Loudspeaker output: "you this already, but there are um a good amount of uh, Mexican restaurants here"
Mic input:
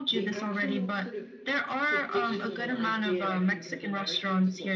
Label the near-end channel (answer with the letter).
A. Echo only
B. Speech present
B